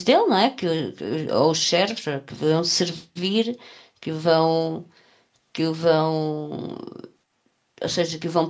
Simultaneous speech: No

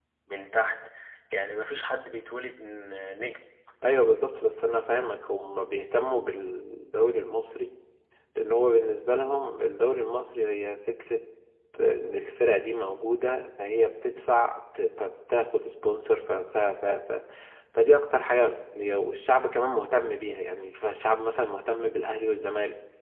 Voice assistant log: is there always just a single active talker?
Yes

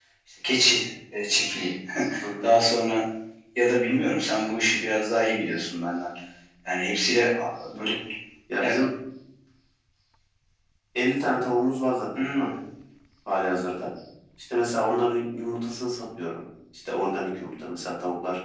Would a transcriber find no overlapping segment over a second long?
Yes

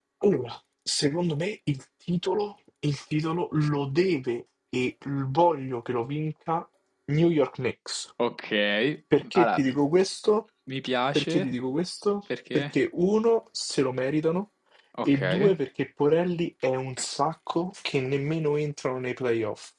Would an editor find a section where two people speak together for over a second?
No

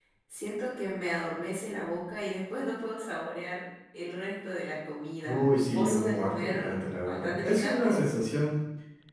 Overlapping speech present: Yes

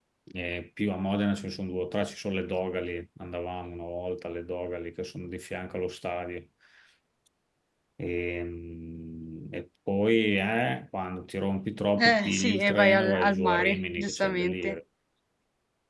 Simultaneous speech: Yes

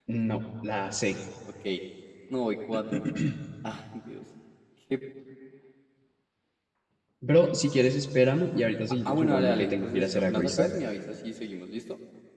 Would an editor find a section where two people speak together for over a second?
Yes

